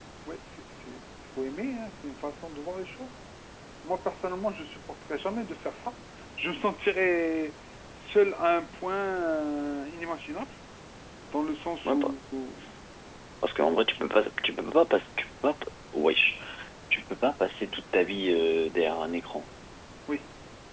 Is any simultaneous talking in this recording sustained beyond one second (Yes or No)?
No